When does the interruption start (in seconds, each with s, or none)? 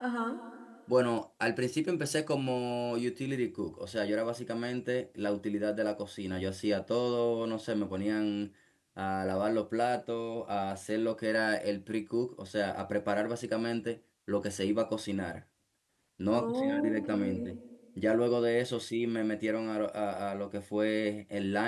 16.3 s